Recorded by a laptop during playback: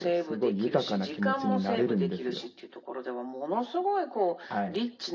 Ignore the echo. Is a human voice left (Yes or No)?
Yes